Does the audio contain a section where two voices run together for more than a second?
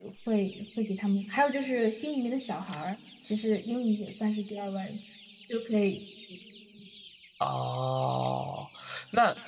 No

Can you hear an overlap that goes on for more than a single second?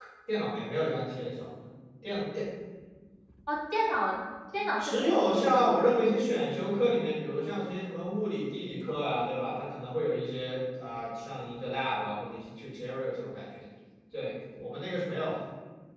Yes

